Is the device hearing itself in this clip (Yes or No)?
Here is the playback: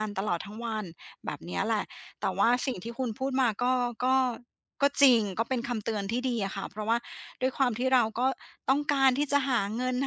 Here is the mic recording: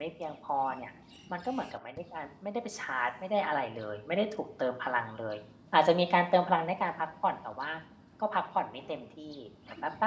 No